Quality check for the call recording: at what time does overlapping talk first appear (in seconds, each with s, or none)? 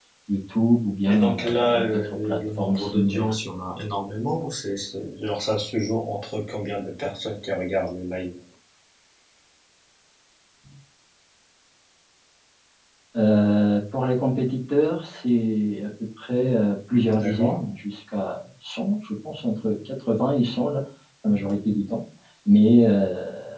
1.0 s